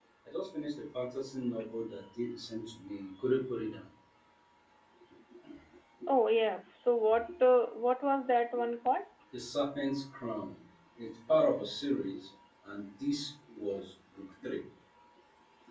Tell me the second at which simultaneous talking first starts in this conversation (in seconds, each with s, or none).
none